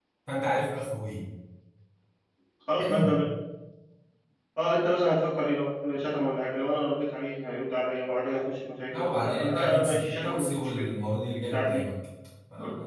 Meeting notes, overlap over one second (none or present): present